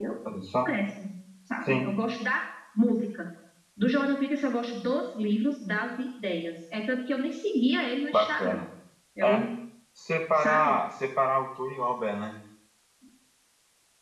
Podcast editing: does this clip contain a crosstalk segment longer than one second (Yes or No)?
No